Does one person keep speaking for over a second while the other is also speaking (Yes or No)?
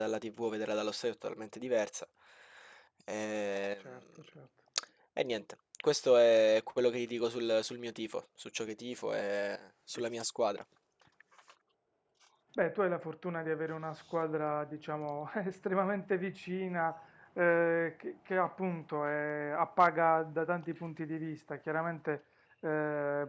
No